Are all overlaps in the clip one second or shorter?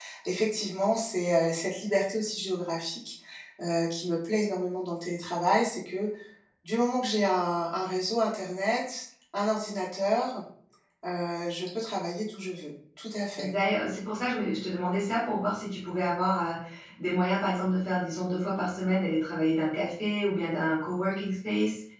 Yes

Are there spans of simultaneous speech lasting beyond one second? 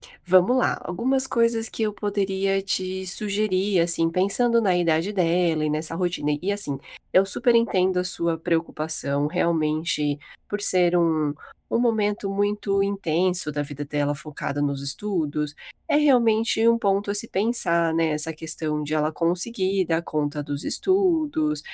No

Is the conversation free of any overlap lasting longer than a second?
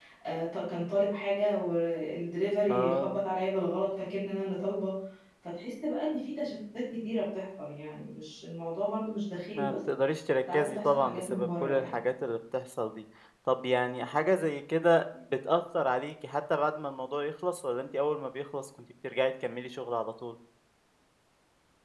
No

